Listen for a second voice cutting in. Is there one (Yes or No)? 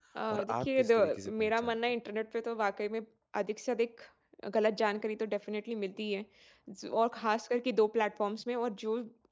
Yes